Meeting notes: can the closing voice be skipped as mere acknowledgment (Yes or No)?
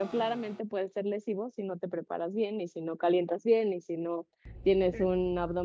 Yes